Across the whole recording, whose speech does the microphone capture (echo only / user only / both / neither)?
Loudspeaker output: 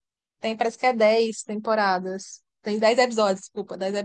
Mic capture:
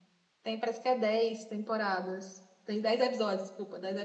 echo only